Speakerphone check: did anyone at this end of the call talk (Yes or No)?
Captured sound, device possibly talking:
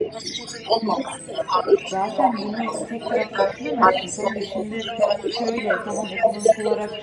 Yes